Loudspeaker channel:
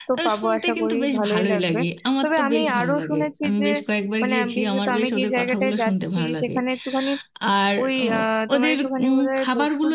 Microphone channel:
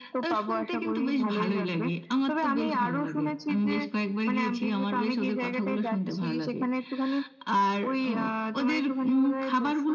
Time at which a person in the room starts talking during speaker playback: none

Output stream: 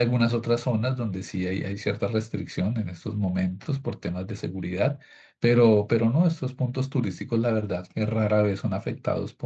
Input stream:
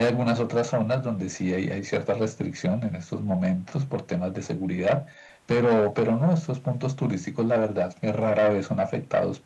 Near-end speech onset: none

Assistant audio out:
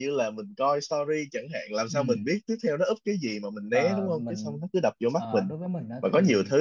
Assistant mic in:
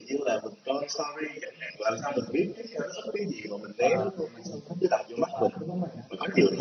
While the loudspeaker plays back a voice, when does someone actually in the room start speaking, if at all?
none

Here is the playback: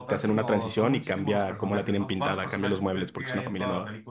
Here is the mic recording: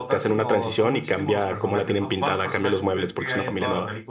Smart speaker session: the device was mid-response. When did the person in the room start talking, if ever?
none

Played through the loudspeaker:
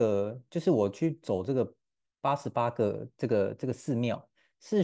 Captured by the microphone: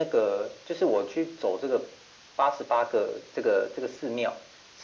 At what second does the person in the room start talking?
none

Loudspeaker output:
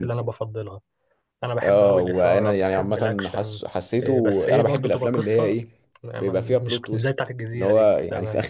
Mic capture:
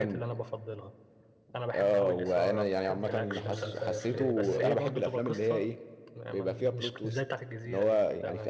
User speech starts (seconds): 3.0 s

